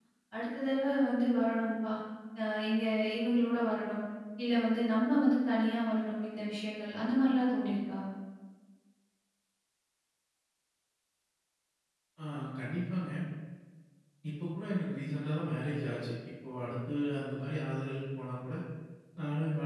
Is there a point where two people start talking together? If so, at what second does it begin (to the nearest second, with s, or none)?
none